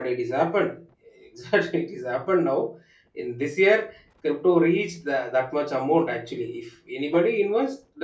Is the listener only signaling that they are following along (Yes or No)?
Yes